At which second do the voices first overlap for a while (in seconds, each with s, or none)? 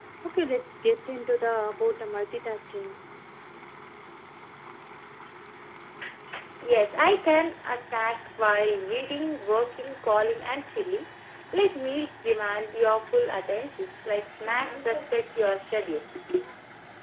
none